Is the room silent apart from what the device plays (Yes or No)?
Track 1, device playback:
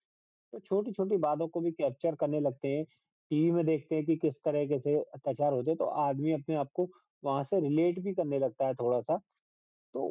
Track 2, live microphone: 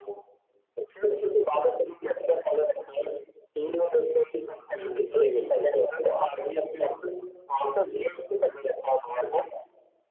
No